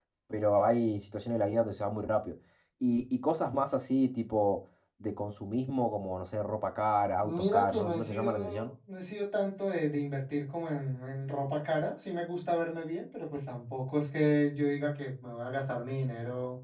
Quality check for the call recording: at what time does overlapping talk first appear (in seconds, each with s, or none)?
7.2 s